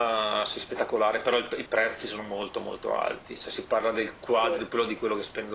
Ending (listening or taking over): listening